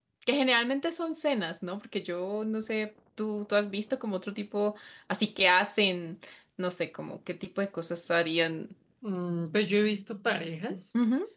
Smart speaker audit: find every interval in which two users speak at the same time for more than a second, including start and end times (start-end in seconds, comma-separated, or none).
none